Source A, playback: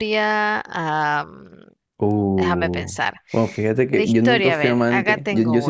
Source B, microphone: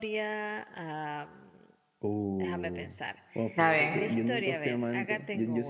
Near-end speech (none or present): present